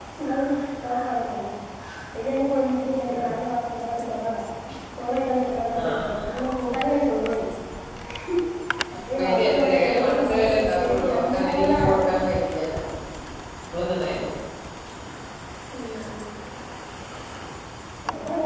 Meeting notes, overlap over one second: present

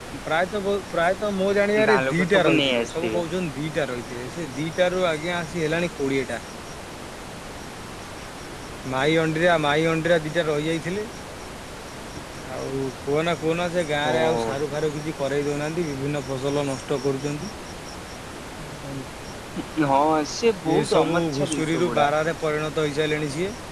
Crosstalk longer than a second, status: present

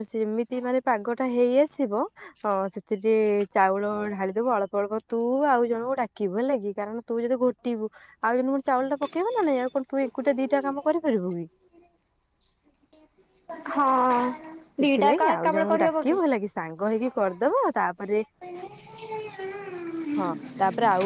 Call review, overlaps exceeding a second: present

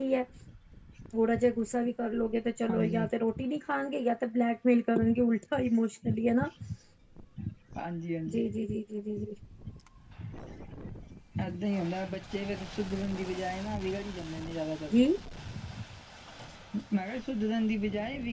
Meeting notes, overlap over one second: none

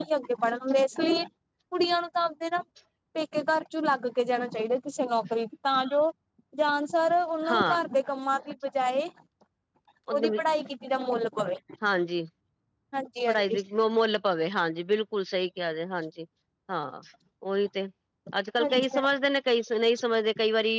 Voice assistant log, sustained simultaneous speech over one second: none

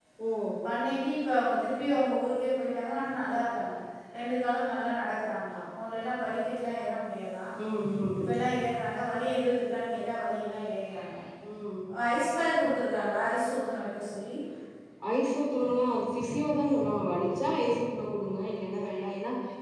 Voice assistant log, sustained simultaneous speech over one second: none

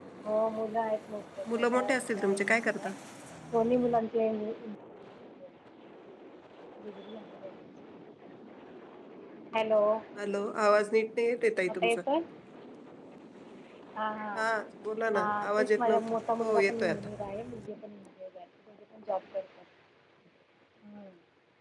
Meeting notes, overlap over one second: present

